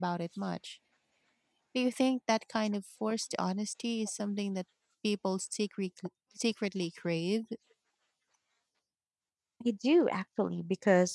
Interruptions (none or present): none